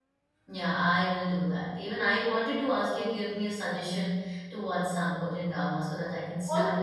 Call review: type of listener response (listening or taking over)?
taking over